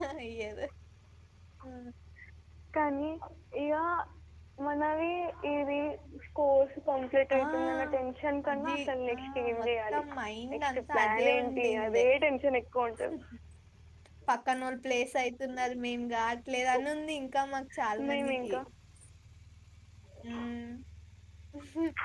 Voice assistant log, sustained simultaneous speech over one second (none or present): present